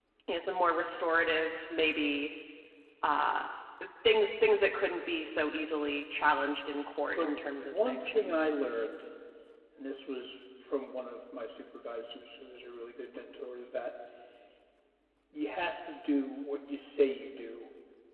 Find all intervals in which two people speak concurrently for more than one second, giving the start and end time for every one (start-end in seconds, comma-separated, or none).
7.2-8.5